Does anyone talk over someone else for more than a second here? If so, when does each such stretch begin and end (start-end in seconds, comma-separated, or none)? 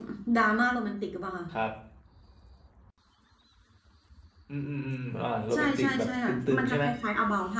5.5-6.8